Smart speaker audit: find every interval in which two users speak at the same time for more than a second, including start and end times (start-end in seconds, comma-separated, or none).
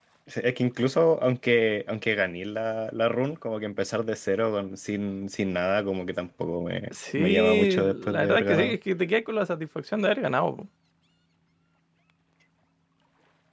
7.2-8.8